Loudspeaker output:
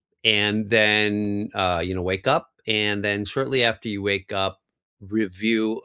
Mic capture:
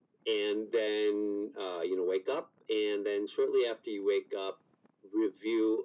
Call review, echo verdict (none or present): present